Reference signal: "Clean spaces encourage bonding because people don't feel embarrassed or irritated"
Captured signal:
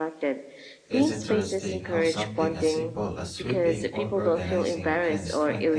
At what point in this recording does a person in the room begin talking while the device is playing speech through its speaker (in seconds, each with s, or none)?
0.9 s